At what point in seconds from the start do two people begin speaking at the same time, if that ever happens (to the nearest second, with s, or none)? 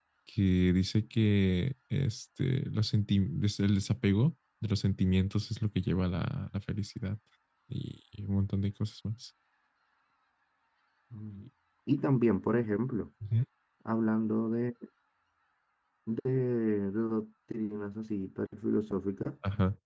none